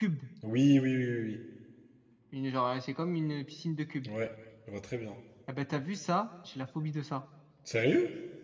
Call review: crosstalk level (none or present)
none